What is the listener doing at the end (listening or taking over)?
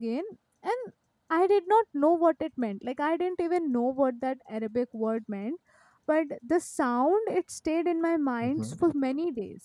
listening